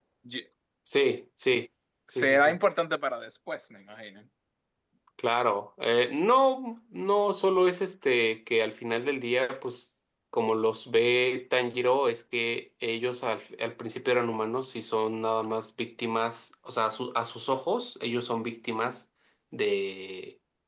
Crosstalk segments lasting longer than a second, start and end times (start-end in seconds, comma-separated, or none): none